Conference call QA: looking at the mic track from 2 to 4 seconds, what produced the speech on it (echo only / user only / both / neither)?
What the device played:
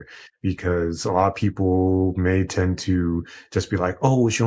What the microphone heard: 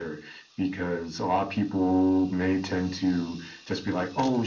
echo only